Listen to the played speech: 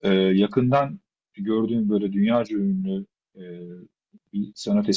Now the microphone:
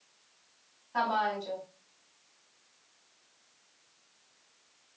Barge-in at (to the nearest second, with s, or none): 1 s